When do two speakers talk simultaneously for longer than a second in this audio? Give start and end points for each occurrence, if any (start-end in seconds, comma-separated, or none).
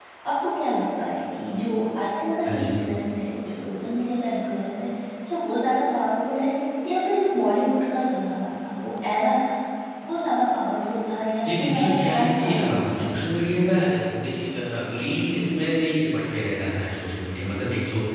11.4-13.1